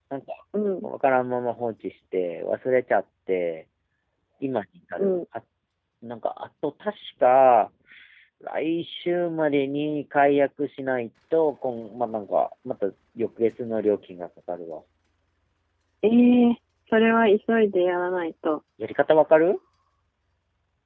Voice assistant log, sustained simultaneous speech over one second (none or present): none